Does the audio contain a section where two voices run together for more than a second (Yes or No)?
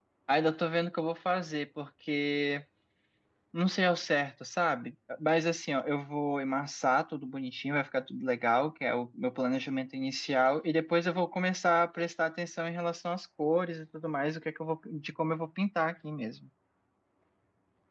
No